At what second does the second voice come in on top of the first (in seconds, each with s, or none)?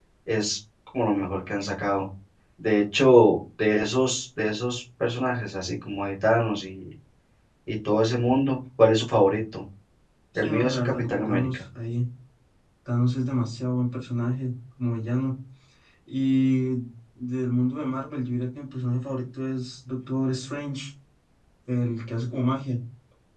10.4 s